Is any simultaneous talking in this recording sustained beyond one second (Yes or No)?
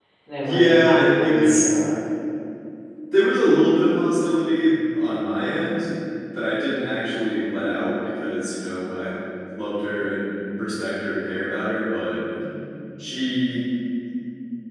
Yes